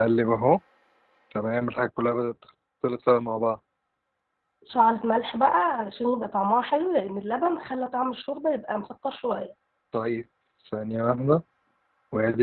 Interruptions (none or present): none